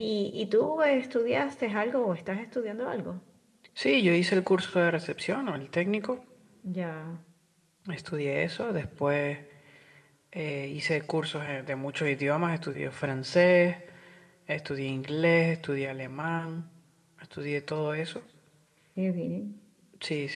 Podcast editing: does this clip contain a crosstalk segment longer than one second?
No

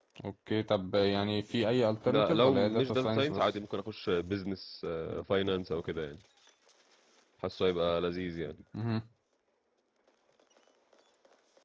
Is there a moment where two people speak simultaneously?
Yes, from 2.1 s

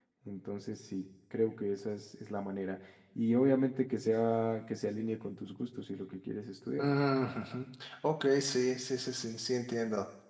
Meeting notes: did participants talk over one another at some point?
No

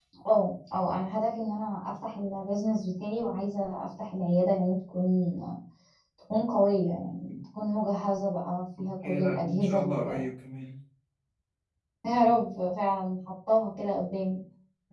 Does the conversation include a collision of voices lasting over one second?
Yes, from 9.0 s

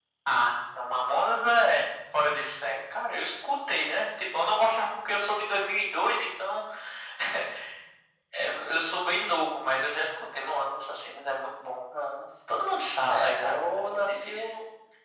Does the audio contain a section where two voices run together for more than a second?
Yes, from 13.0 s

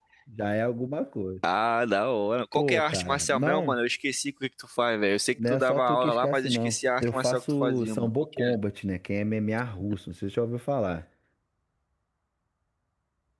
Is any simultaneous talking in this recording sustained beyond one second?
Yes, from 2.5 s

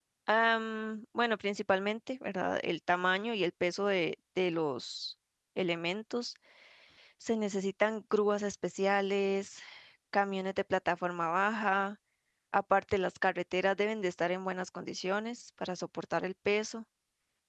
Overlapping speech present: No

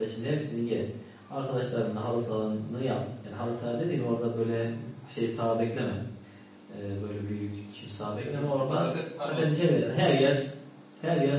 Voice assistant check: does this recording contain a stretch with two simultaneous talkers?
Yes, from 8.2 s

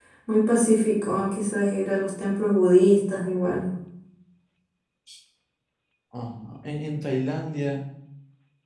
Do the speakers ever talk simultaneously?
No

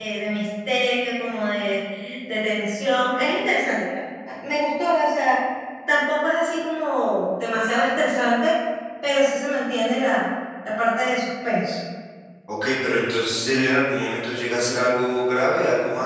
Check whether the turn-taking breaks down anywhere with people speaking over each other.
No

